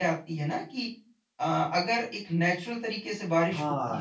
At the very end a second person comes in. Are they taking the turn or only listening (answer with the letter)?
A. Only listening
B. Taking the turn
B